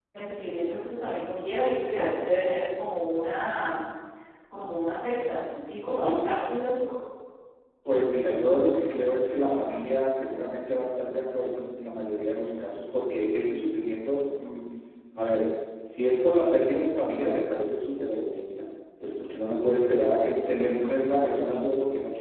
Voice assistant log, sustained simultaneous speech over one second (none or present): none